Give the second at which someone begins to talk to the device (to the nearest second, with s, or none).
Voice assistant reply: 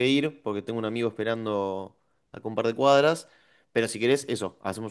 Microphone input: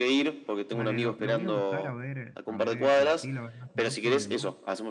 1 s